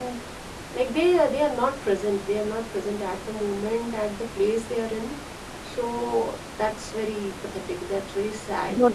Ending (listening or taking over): taking over